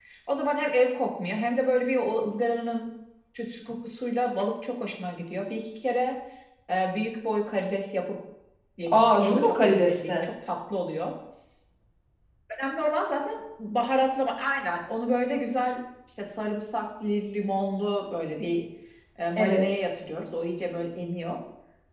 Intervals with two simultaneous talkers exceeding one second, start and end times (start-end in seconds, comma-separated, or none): 8.9-10.2